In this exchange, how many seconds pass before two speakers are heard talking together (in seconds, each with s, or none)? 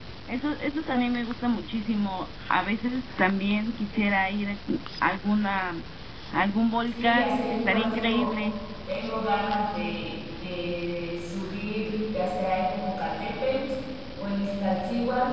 6.9 s